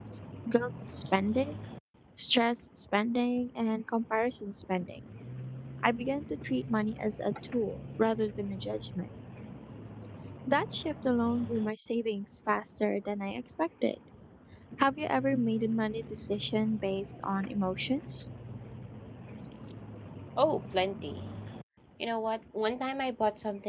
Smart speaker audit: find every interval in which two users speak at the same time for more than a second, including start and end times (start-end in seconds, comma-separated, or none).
none